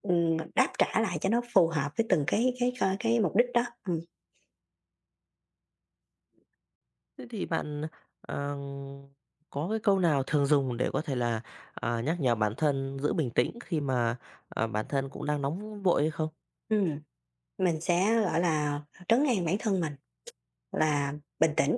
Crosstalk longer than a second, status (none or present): none